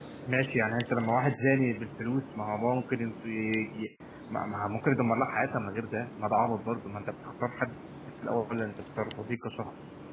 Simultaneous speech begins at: none

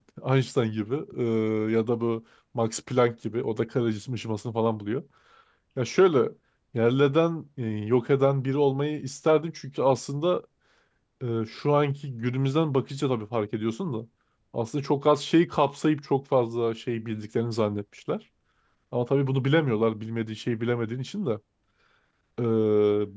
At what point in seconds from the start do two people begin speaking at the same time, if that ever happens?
none

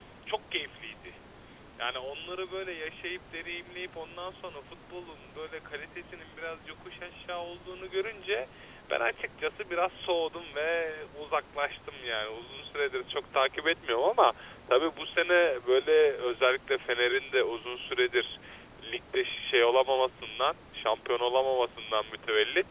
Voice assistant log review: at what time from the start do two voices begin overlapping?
none

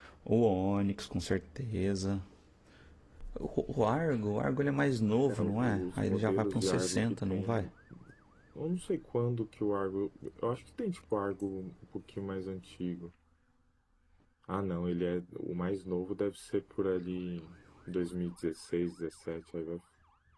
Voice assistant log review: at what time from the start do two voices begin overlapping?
5.3 s

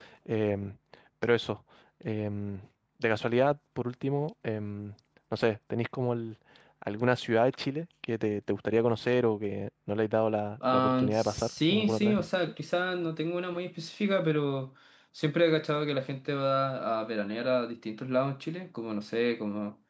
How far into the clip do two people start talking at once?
10.6 s

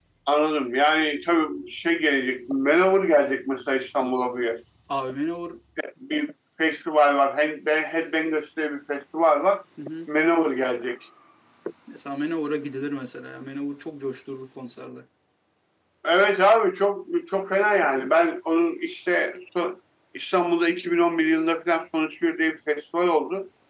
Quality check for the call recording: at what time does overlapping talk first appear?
none

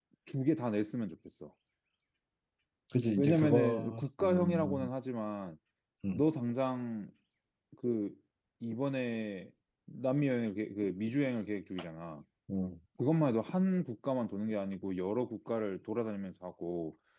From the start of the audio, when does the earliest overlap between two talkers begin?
3.2 s

